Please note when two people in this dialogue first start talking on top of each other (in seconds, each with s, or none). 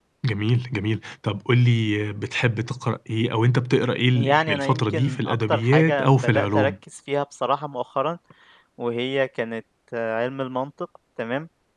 4.1 s